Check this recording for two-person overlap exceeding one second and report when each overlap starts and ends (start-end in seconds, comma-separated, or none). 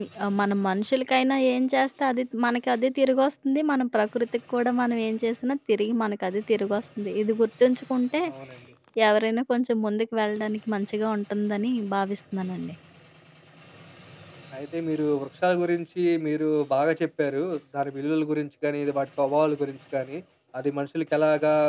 none